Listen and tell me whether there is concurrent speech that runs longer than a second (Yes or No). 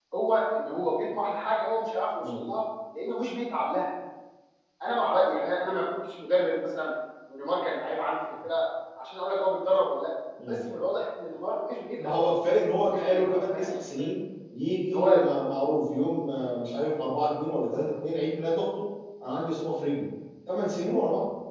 Yes